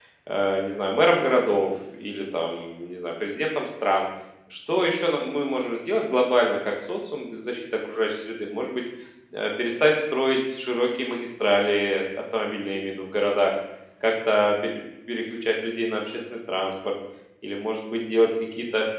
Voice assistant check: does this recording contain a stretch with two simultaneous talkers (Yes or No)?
No